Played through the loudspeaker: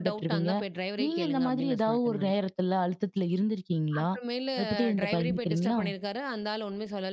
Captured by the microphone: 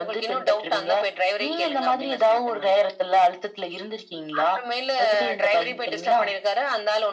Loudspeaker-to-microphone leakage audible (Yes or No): Yes